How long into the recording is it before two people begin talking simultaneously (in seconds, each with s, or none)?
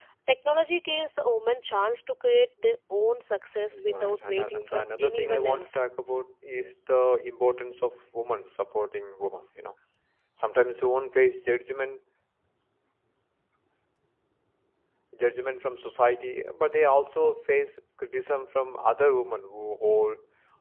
3.7 s